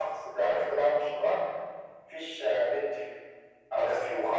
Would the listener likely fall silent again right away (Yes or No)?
Yes